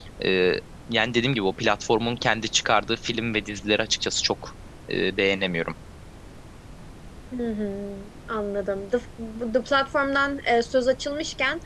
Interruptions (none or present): none